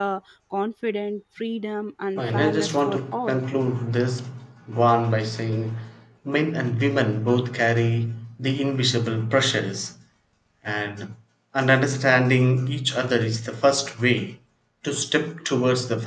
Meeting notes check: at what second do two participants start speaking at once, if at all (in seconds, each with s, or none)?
2.2 s